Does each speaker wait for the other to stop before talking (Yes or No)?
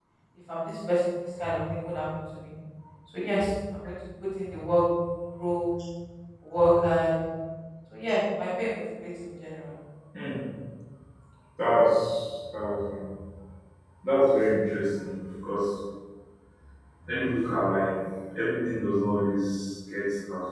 Yes